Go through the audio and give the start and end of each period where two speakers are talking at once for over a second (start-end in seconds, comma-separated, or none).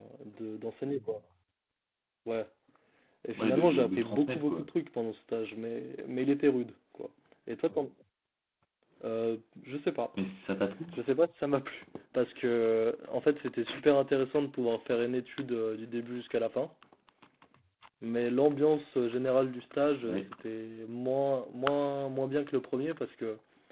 3.3-4.7